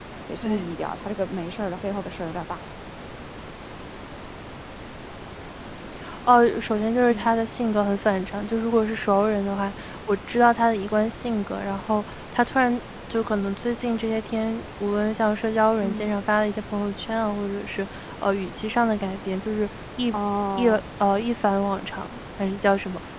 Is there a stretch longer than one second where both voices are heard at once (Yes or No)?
No